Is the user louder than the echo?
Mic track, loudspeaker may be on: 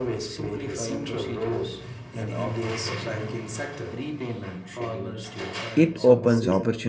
Yes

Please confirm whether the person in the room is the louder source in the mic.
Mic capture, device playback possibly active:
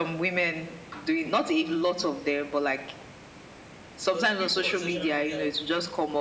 No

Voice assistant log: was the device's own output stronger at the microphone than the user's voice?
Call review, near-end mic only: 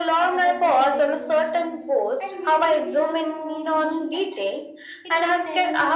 Yes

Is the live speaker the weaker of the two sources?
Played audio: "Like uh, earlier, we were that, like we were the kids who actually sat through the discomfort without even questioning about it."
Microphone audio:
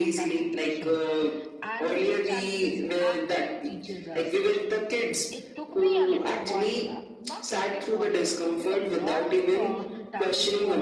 Yes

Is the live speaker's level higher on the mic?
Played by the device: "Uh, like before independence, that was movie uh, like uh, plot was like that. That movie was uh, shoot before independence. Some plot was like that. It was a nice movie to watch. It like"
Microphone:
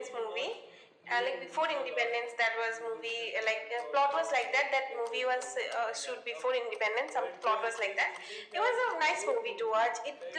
No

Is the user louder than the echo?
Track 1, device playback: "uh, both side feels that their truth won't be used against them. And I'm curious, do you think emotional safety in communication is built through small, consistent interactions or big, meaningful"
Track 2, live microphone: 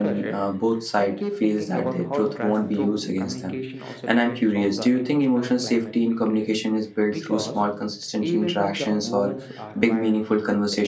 No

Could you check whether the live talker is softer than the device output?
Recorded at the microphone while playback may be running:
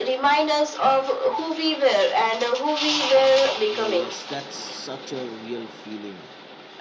Yes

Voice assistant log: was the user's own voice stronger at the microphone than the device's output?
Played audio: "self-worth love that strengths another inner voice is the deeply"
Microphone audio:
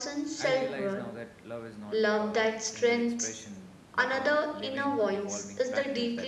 No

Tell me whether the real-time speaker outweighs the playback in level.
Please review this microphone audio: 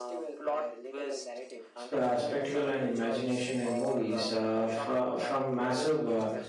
Yes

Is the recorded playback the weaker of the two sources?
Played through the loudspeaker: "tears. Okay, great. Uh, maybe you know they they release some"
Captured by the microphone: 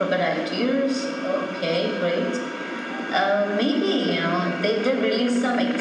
No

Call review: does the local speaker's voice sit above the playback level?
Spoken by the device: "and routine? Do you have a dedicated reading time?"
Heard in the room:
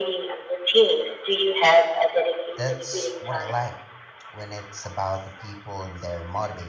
No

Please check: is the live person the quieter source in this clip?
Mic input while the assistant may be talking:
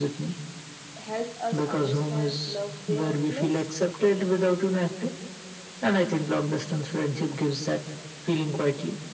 Yes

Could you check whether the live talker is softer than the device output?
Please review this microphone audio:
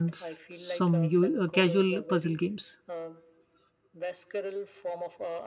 No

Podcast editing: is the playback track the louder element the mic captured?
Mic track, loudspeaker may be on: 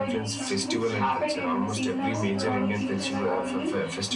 Yes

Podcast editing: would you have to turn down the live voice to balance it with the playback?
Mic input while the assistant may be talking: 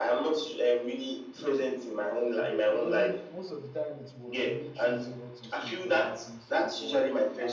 No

